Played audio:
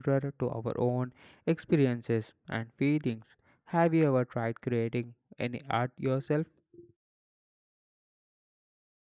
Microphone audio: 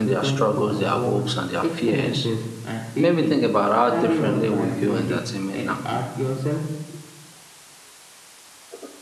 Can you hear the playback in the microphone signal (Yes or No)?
Yes